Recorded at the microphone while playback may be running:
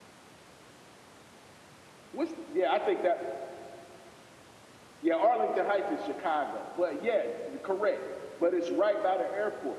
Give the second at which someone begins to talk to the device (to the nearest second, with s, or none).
none